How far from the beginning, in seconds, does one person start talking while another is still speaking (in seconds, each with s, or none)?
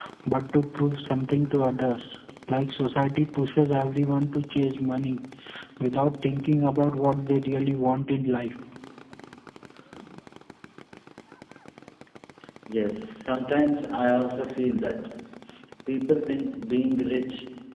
none